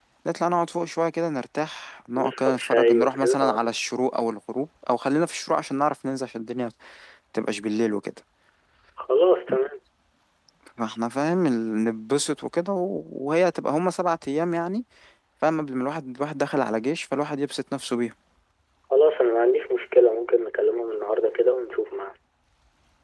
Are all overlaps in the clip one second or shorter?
No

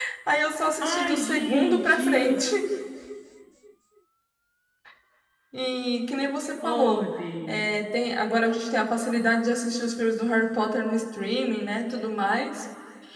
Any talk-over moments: Yes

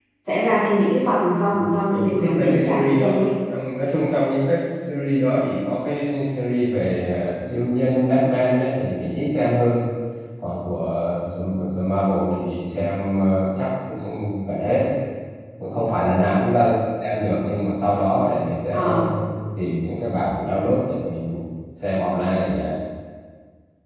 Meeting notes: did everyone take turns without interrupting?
No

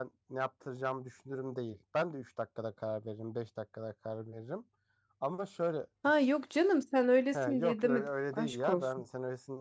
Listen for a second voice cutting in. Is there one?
Yes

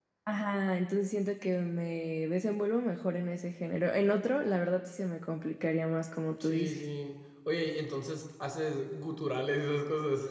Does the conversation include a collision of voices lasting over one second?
No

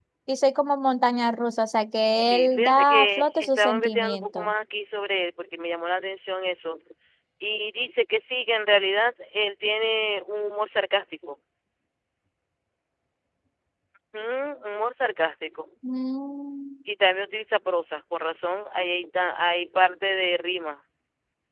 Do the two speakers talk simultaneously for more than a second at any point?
Yes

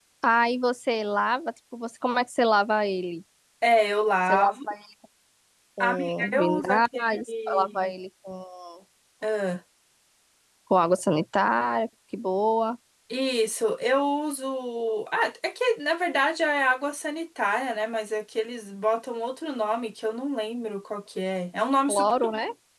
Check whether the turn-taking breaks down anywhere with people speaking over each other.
Yes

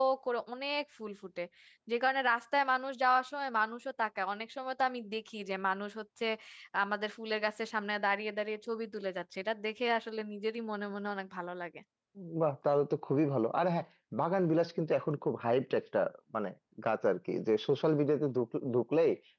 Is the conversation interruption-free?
Yes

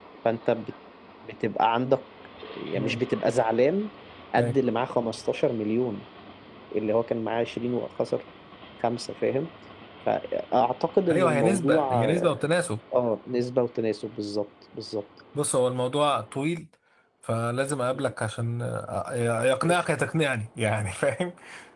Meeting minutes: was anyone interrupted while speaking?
Yes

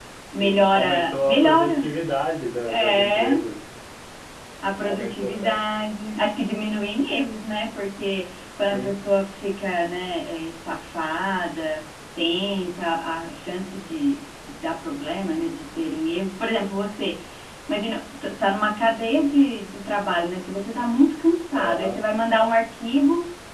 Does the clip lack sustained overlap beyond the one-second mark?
No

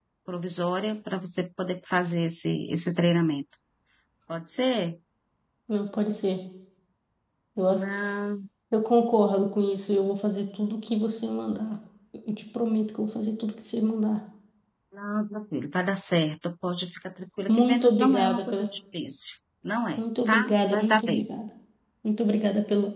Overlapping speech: Yes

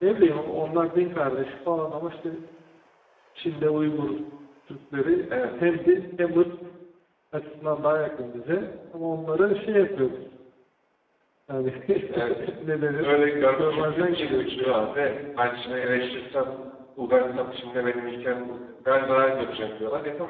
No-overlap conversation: No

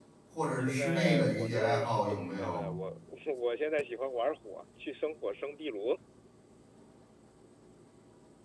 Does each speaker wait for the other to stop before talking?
No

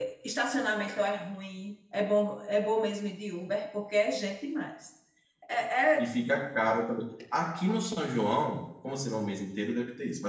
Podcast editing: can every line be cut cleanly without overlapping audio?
Yes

